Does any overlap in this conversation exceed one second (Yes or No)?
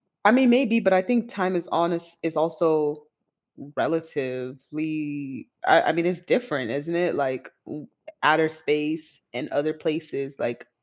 No